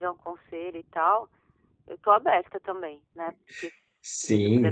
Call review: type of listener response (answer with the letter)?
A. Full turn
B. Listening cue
A